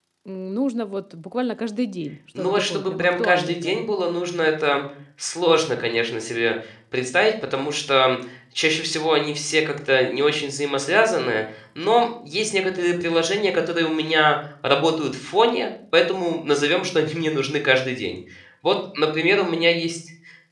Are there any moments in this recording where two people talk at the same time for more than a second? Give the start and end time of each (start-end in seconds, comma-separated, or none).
2.4-3.8